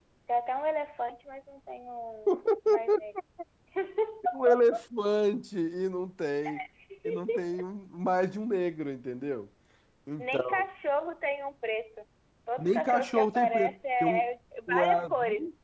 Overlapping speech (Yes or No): Yes